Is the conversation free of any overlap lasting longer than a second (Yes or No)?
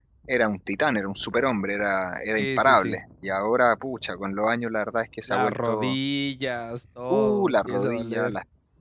No